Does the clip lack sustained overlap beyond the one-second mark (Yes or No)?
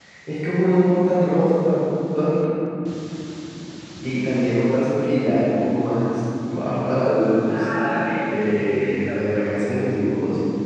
No